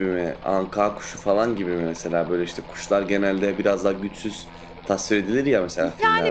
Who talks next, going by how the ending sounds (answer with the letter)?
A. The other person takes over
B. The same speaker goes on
A